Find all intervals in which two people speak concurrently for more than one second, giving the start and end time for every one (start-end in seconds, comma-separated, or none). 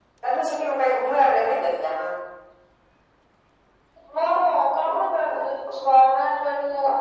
none